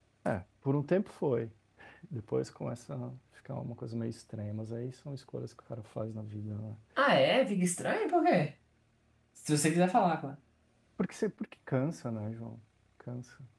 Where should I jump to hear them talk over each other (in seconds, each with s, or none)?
none